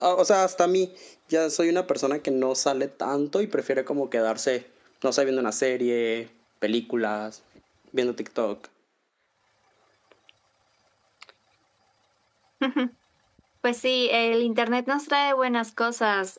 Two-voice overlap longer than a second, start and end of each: none

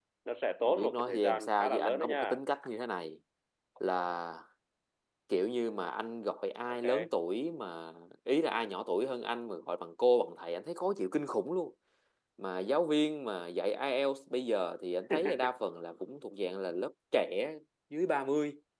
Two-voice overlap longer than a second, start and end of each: 0.7-2.4

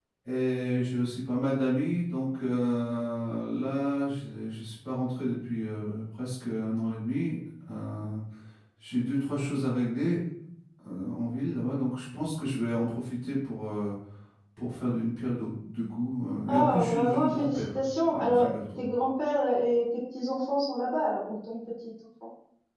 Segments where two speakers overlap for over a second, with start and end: 16.5-18.8

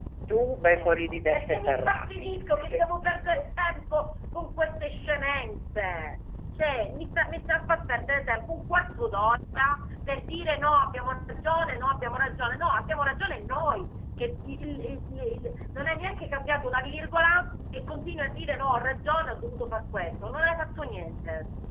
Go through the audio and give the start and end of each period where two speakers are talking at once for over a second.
0.7-2.8

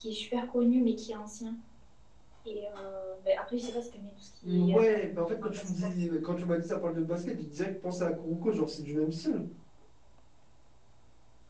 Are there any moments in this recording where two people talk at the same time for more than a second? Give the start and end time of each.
4.4-5.7

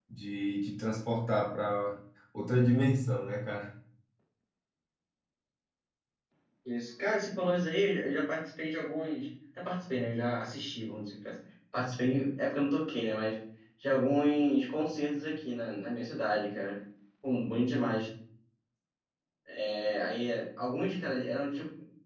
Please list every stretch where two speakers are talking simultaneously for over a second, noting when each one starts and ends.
none

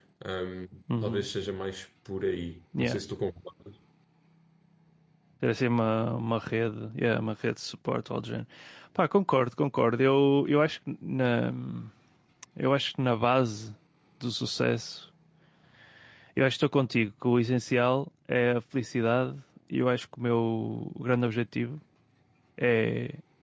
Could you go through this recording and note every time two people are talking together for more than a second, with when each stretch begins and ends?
none

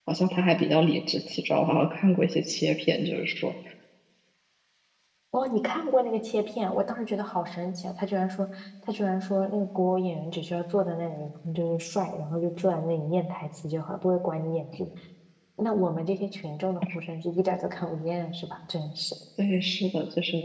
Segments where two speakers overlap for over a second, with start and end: none

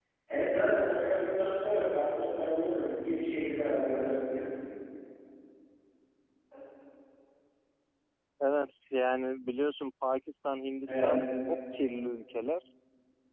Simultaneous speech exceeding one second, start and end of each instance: none

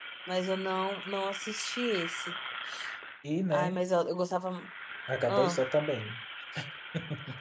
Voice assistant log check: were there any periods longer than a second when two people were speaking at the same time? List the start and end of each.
none

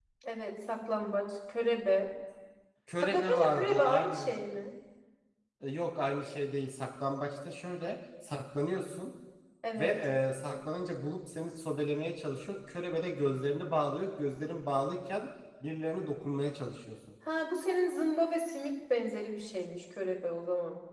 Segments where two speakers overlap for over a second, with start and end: 3.0-4.3

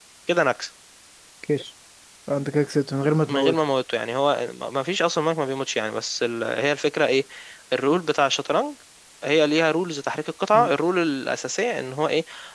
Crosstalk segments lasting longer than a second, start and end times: none

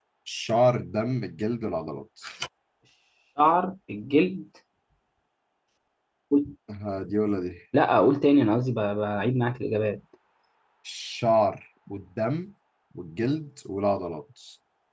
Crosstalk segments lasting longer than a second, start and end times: none

